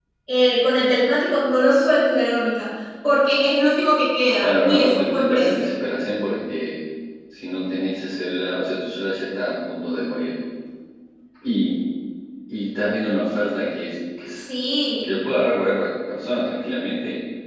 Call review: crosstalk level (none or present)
present